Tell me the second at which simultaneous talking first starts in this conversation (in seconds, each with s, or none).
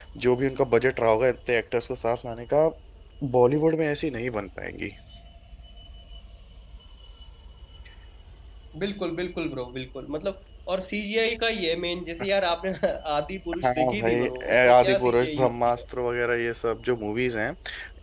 13.6 s